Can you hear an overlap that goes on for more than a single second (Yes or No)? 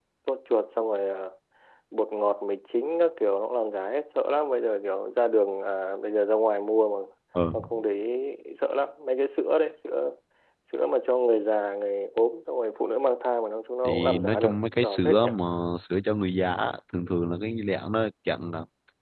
Yes